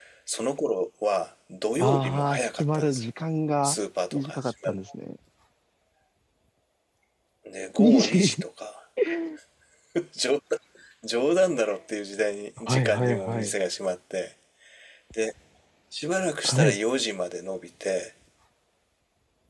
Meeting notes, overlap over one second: present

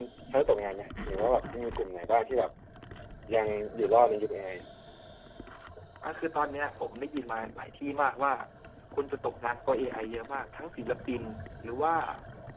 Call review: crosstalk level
none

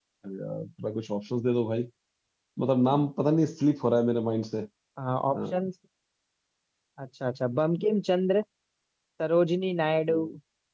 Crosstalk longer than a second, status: none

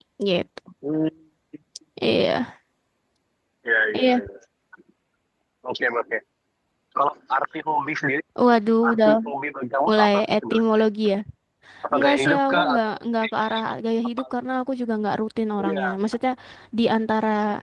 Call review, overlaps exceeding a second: present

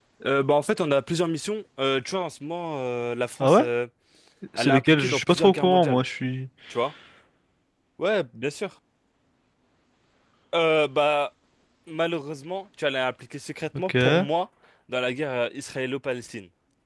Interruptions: present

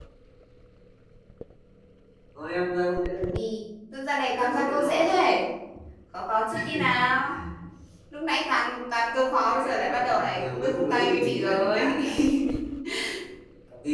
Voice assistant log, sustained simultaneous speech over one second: present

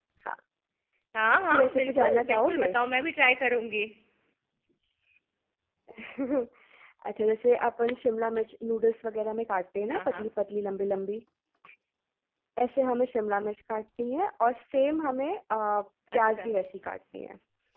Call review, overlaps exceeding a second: present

